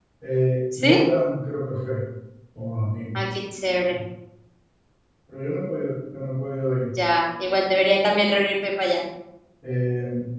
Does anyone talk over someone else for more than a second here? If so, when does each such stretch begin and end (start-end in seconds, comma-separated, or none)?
none